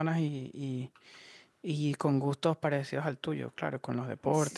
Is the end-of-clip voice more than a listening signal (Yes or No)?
Yes